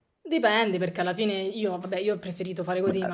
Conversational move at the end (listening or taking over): listening